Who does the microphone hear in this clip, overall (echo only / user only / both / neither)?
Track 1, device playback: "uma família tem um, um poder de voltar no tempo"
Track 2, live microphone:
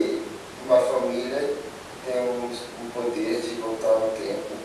echo only